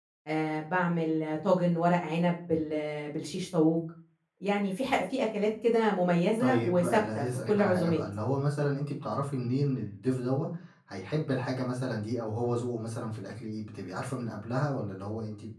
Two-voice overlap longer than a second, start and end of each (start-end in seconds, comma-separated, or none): 6.4-8.0